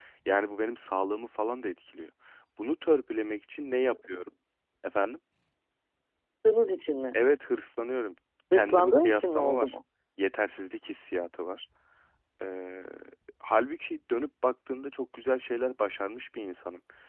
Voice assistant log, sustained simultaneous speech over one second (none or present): present